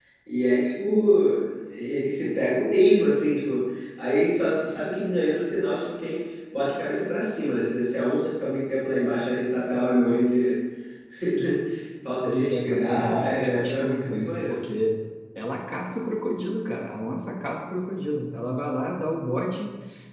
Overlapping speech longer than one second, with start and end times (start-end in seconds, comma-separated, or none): 12.2-14.6